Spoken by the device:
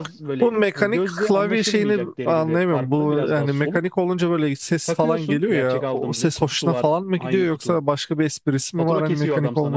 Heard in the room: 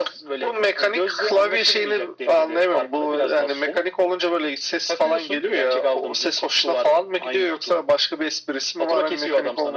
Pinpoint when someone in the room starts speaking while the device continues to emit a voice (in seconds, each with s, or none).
none